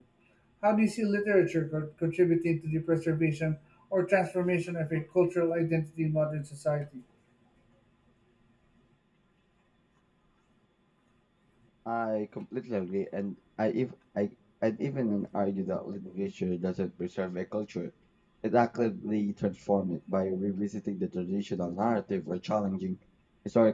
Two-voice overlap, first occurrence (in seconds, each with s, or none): none